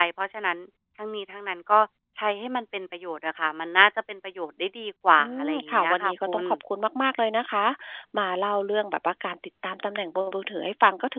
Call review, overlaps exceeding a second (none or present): present